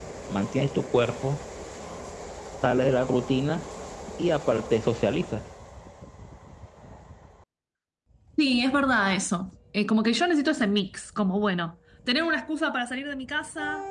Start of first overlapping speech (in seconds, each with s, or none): none